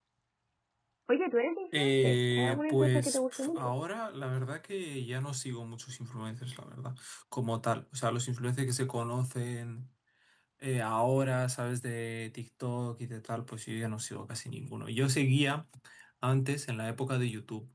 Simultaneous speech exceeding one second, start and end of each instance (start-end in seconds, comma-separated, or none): 1.8-3.7